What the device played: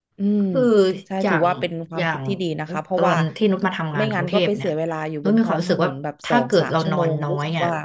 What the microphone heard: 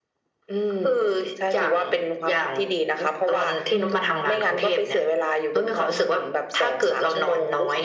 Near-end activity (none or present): present